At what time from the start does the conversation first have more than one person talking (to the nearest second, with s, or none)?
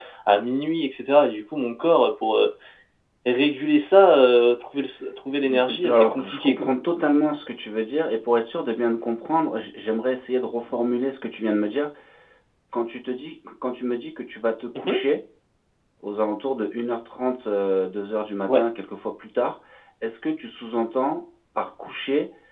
5 s